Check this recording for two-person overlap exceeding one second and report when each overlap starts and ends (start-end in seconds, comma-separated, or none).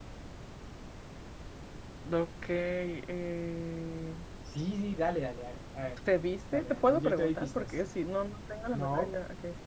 6.5-7.8